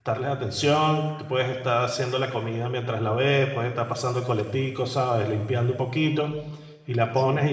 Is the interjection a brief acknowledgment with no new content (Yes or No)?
Yes